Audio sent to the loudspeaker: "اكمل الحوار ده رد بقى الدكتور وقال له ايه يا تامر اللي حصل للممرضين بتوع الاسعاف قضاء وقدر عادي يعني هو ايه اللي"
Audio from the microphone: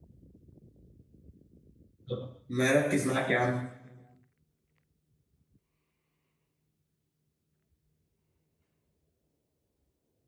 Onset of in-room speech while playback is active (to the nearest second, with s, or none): 2 s